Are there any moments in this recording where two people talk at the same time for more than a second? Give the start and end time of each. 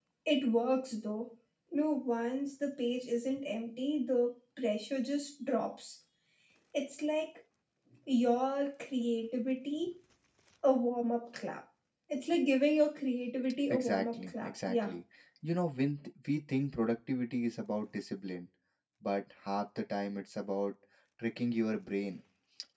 13.7-14.9

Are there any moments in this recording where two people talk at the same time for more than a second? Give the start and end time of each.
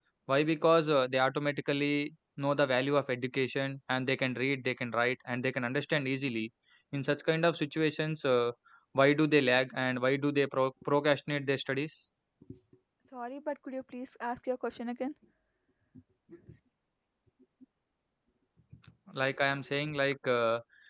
none

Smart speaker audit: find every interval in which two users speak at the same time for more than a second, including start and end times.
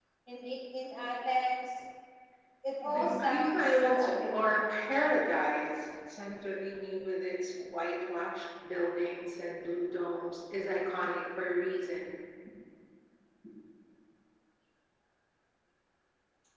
2.9-4.5

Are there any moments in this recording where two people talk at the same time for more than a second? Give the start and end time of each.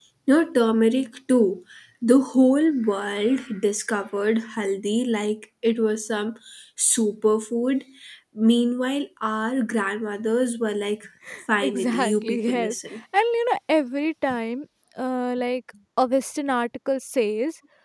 11.6-12.8

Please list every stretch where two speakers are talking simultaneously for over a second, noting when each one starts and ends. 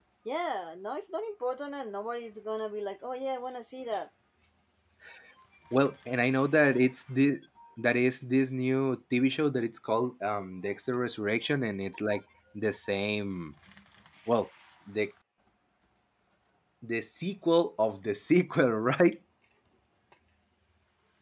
none

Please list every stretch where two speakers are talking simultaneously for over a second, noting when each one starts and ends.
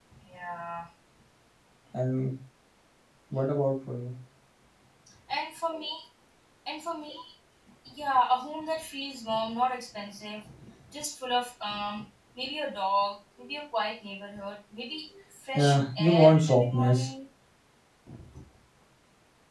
15.5-17.1

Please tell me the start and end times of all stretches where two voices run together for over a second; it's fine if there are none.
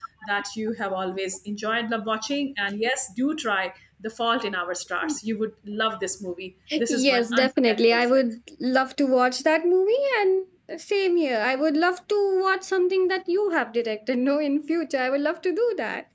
6.9-8.2

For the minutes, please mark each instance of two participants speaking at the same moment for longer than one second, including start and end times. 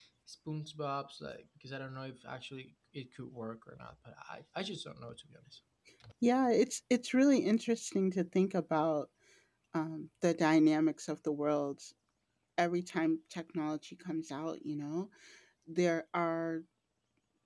none

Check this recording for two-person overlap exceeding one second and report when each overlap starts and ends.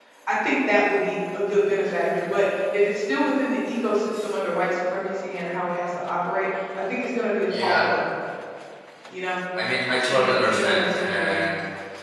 10.1-11.4

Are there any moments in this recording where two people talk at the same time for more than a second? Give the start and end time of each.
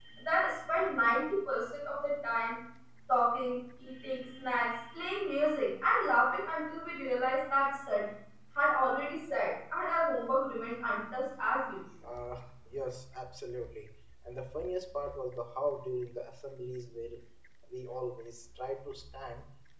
none

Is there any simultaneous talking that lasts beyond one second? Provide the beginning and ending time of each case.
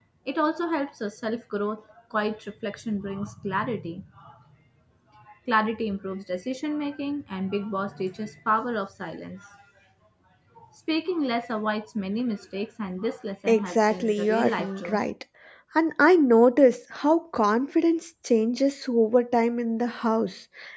13.5-15.0

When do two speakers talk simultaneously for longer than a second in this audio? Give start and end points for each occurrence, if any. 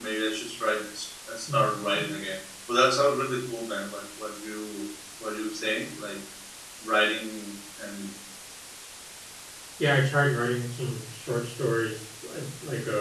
none

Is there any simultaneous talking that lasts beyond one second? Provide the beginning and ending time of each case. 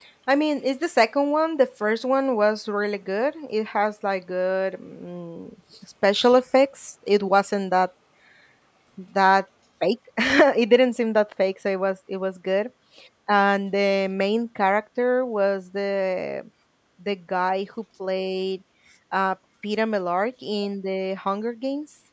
none

